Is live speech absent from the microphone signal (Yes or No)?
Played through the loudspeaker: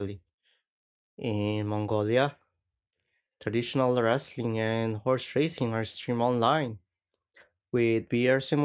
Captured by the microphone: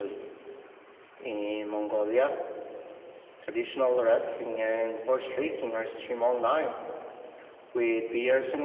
Yes